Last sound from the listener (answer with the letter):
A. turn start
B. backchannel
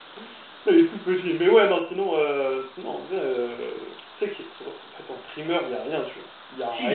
A